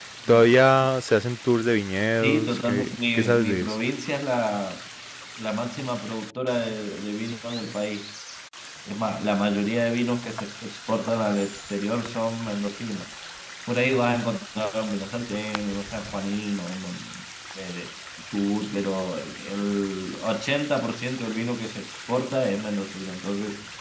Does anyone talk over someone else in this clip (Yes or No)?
Yes